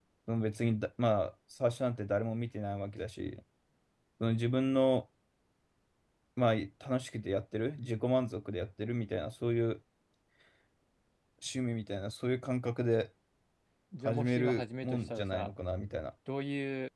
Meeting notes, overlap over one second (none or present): present